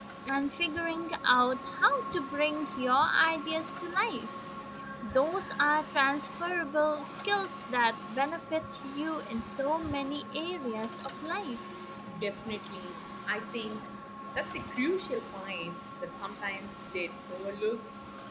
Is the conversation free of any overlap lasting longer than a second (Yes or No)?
Yes